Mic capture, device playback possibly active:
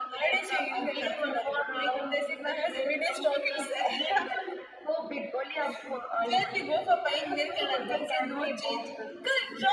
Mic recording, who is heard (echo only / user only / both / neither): echo only